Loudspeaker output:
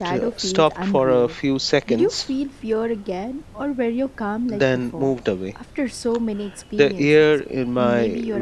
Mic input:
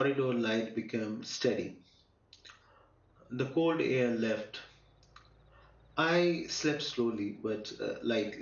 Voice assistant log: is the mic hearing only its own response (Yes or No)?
No